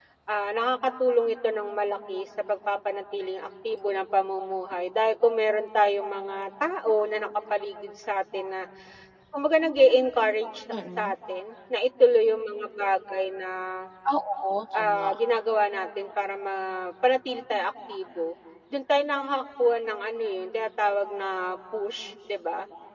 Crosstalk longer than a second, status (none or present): none